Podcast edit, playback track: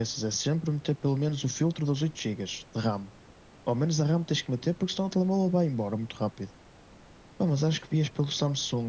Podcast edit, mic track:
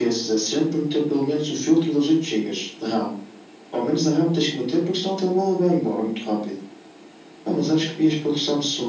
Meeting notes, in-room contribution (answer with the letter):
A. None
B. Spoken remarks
A